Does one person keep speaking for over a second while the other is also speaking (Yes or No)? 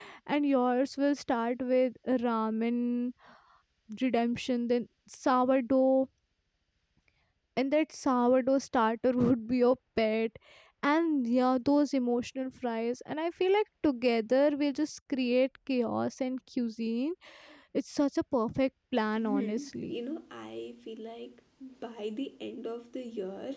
No